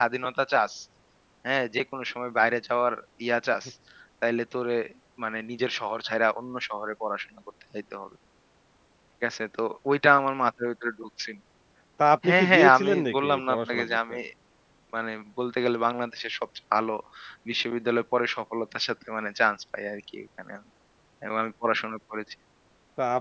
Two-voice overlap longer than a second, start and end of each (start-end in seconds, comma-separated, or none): 12.2-14.1